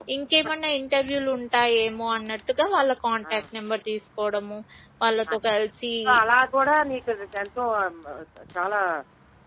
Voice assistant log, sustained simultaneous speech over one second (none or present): none